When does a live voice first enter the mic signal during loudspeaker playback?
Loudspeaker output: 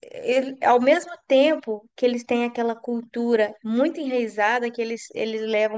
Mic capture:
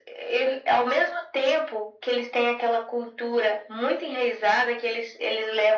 none

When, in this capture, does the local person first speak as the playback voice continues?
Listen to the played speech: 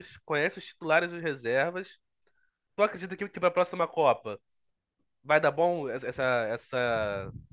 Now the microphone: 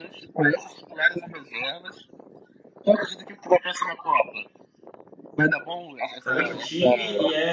6.2 s

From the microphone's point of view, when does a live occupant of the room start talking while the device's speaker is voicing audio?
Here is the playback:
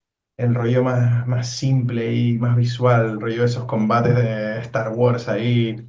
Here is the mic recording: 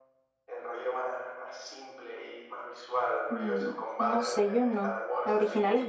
3.3 s

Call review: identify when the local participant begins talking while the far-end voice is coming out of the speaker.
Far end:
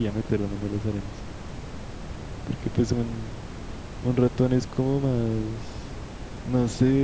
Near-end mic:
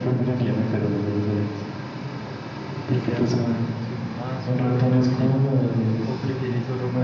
2.8 s

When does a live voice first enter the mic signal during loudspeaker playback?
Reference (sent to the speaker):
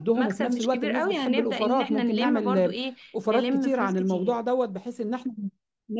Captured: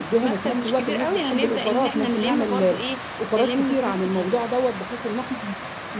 none

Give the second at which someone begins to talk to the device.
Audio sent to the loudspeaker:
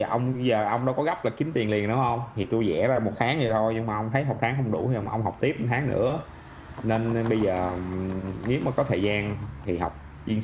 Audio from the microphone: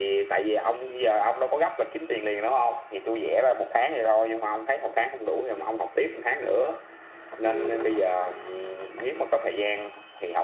7.4 s

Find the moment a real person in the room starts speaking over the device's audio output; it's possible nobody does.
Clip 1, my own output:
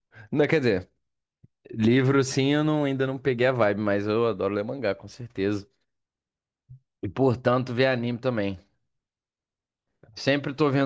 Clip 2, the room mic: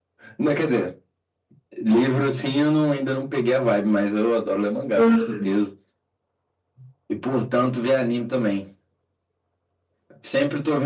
5.0 s

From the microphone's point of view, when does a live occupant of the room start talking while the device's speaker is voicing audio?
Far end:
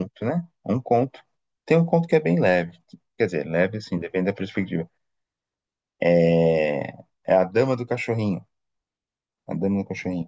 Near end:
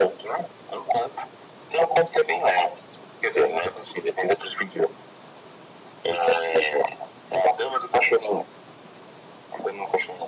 none

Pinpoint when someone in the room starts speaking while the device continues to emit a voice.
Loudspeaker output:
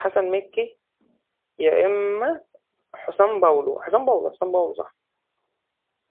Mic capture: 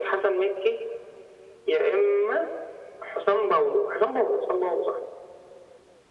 none

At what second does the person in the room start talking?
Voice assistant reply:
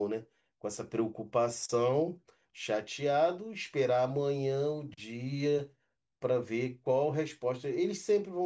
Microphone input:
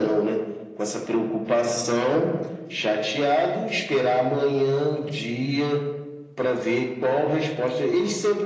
none

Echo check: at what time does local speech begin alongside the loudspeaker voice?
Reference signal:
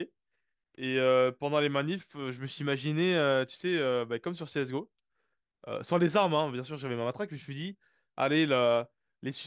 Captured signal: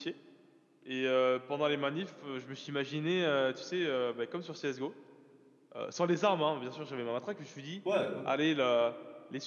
7.8 s

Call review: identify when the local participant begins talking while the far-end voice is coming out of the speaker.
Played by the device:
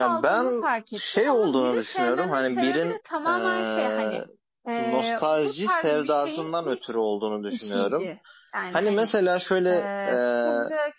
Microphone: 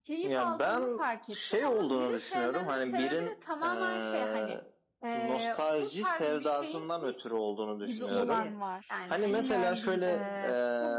7.8 s

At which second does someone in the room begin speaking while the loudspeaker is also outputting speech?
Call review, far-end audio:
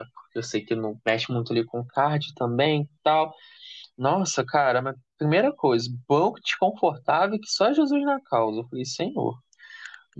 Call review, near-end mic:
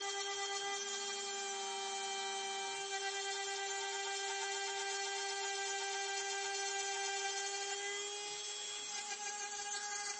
none

